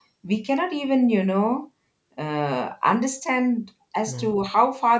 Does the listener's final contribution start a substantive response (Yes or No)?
No